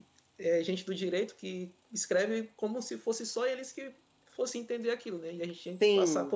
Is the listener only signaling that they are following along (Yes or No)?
No